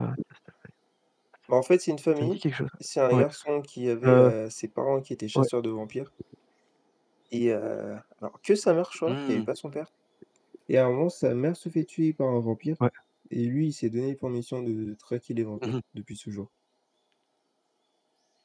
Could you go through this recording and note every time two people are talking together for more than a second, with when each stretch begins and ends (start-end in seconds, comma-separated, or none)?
none